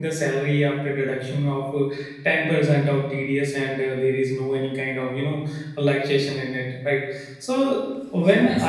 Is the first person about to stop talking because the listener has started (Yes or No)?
No